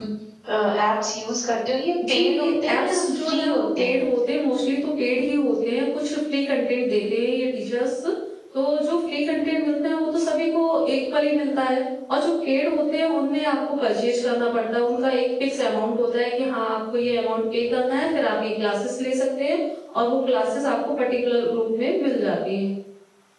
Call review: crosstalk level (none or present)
present